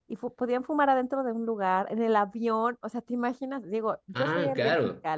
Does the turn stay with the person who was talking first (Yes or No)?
Yes